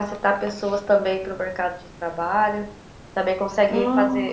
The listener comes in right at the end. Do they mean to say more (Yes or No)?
No